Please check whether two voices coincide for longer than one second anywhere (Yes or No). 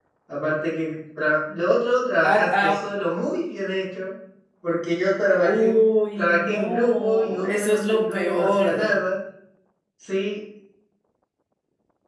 Yes